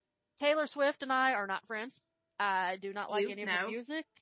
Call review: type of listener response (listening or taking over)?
listening